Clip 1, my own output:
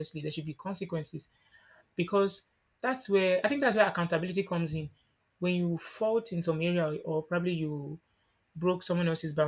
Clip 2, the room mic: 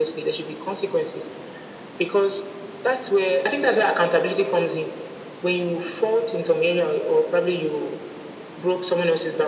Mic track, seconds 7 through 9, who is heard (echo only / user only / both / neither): echo only